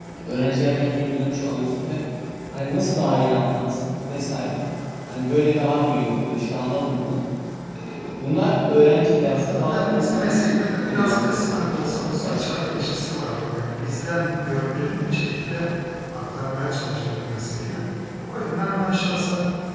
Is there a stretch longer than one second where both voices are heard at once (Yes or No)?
Yes